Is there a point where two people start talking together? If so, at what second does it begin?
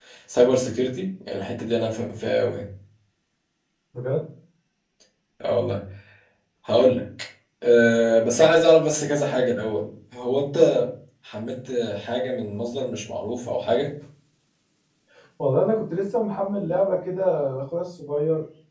none

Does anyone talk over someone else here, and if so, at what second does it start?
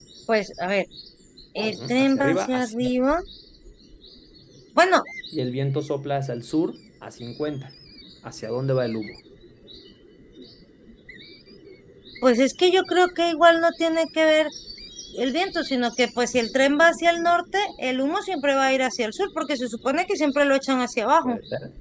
1.7 s

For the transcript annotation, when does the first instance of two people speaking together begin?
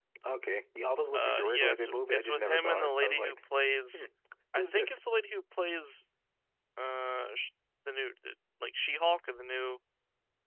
1.1 s

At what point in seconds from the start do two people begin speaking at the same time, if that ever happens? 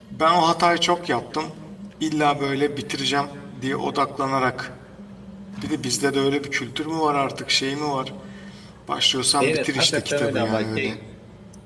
9.4 s

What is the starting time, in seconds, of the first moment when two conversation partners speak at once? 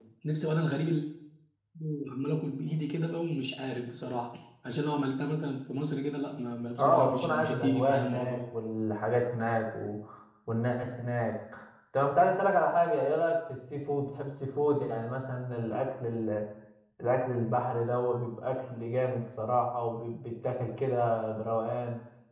6.8 s

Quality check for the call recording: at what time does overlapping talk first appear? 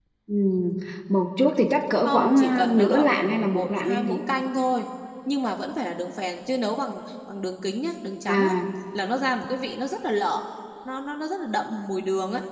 2.0 s

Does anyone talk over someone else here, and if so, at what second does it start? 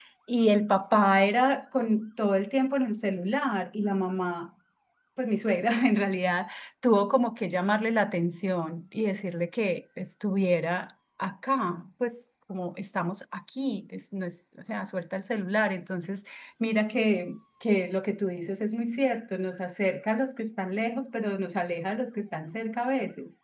none

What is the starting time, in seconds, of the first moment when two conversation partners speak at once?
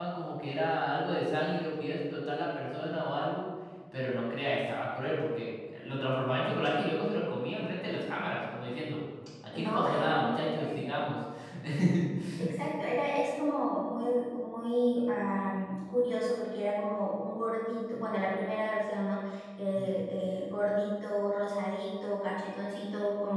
9.5 s

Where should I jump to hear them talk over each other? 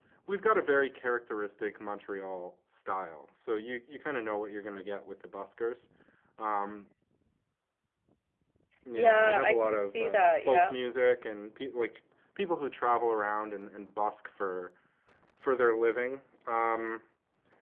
8.9 s

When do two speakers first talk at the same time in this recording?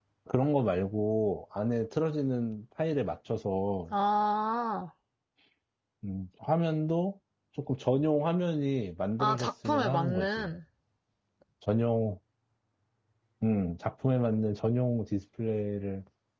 9.2 s

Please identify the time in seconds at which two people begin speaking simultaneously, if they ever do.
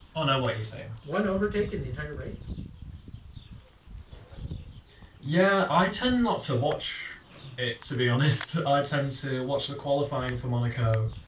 none

